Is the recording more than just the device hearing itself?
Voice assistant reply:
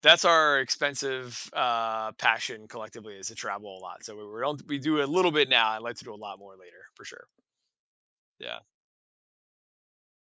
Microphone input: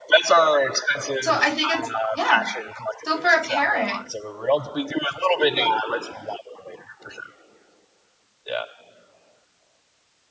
Yes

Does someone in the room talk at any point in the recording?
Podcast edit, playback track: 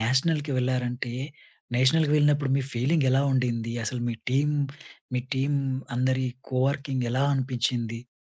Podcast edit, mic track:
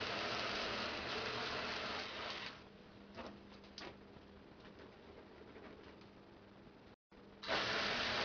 No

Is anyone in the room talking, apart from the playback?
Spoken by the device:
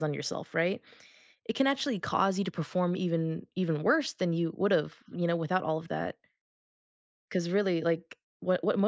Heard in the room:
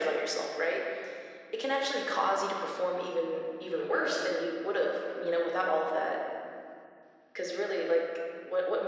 No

